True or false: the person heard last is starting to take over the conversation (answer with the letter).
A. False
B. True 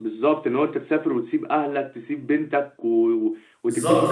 B